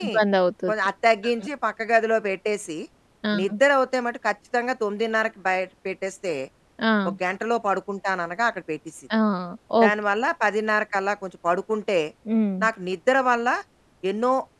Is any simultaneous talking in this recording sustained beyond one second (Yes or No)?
No